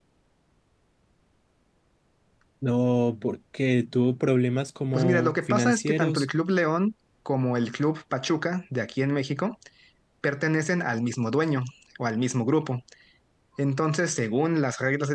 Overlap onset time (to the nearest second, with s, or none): 5 s